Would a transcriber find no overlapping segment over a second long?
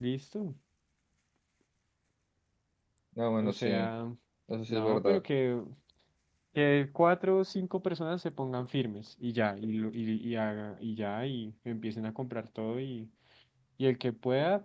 Yes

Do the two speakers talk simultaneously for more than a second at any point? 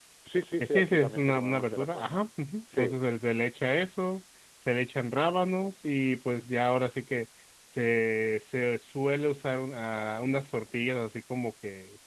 Yes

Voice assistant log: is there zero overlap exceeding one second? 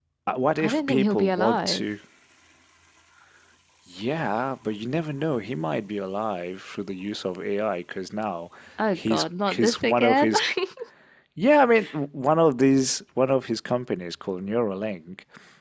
No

